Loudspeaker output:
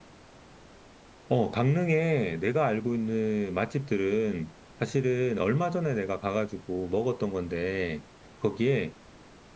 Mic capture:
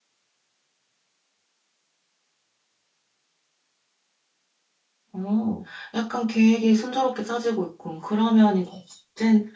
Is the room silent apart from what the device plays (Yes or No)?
No